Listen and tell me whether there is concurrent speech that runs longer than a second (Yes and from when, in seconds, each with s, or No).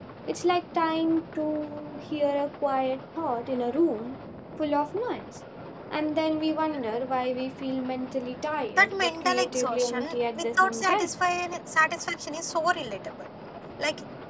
Yes, from 8.8 s